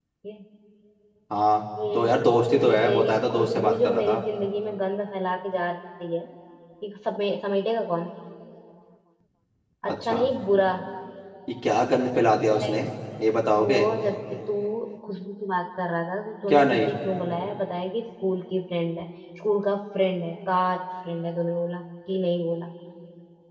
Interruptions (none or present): present